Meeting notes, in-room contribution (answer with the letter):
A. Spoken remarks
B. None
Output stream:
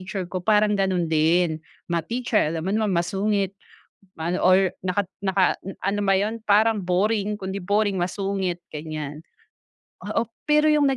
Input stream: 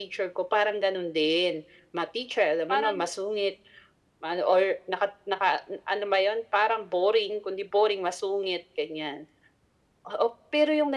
A